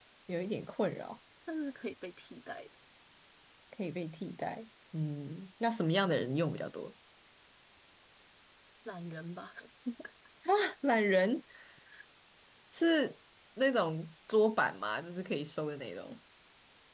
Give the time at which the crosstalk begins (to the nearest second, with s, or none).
none